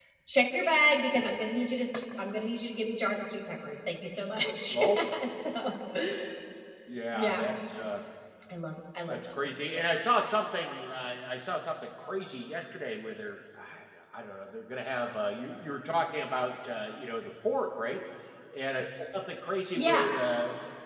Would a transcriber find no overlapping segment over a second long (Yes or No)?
Yes